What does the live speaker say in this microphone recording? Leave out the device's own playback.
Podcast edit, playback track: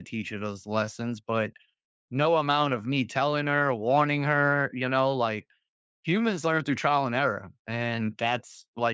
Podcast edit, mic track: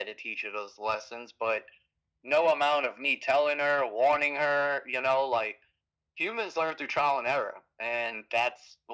none

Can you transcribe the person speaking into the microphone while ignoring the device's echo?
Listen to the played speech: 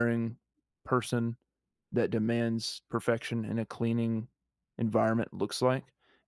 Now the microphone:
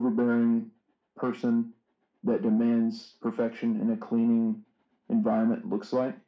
none

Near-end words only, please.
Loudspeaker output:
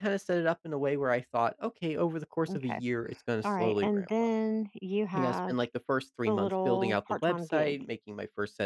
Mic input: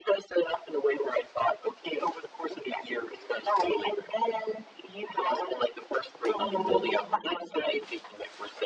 Mhm.

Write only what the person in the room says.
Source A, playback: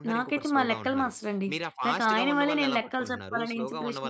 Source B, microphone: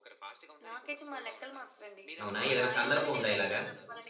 అవునా? ఏదైనా సందర్భం ఉందా ఇలాగా?

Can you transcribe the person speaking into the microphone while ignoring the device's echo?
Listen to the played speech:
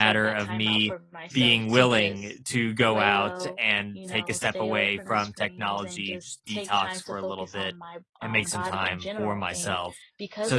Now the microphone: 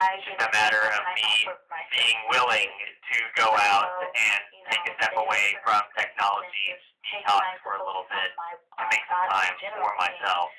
none

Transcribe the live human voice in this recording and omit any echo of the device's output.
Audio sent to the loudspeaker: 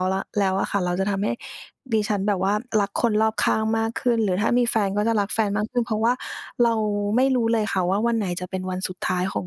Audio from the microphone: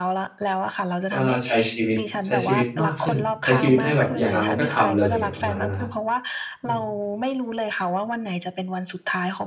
ก็น่าใช้ชีวิตใช้ชีวิตมากขึ้นใช้ชีวิตให้แบบอยากทำอะไรก็ทำเลยประมาณนั้นนะครับอืม

